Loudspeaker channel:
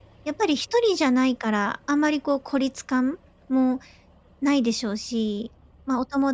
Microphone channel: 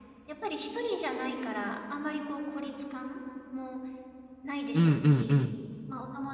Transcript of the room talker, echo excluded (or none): うん、うんうん。